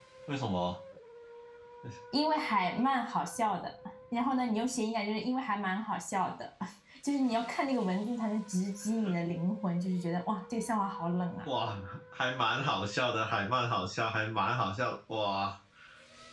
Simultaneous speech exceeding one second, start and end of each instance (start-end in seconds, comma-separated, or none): none